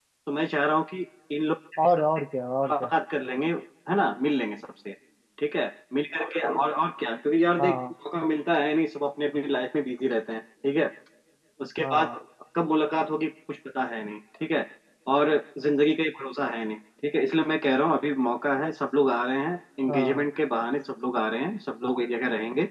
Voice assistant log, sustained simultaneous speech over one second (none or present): none